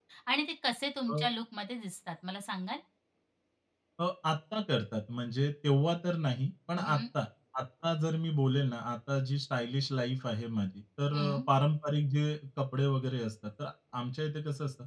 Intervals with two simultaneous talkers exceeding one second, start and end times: none

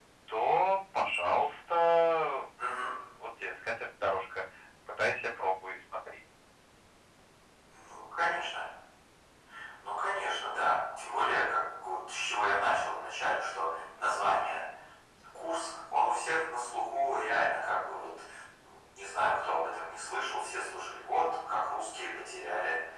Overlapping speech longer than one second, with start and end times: none

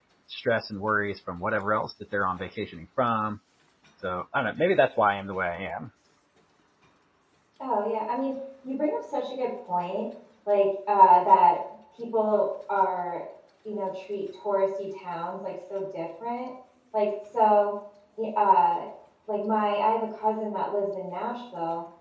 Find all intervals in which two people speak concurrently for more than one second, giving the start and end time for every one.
none

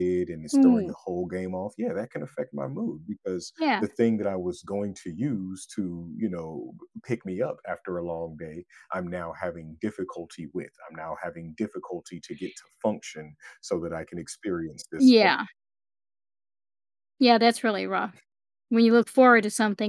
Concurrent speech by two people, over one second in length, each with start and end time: none

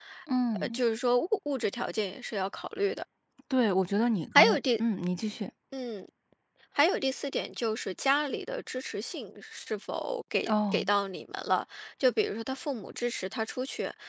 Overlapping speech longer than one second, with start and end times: none

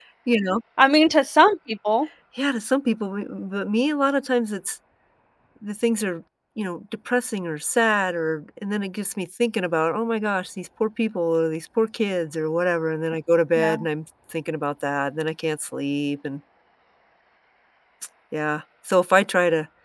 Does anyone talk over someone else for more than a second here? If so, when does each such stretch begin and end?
none

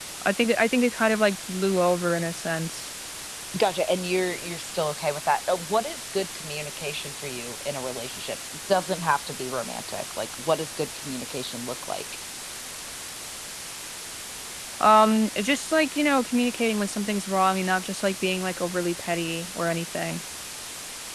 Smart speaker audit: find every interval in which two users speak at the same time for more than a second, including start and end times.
none

